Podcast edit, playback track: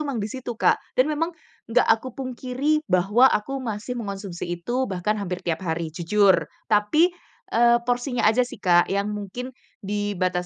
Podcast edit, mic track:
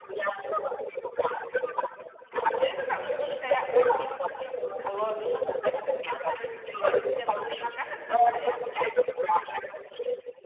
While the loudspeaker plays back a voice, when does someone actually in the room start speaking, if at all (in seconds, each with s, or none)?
2.5 s